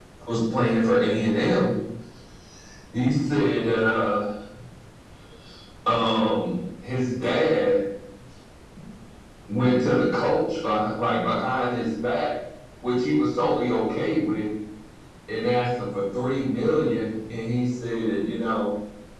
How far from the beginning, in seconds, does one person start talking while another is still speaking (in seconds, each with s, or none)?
none